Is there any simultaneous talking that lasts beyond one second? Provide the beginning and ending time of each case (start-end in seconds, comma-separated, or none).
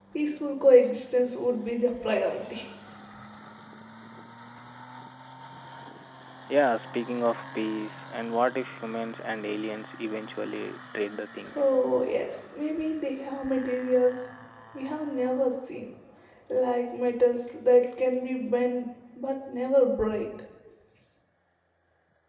none